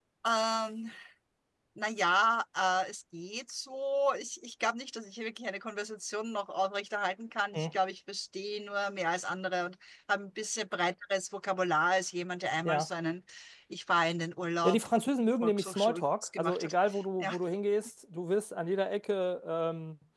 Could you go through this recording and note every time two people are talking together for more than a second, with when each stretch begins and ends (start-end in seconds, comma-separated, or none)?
15.4-16.7